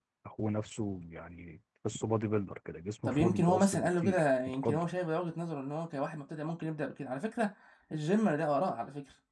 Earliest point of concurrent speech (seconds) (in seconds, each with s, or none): 3.1 s